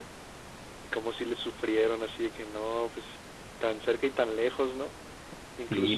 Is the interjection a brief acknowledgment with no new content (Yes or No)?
No